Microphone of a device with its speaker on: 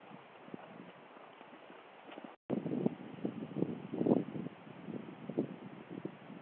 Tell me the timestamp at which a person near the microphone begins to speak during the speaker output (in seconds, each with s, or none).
none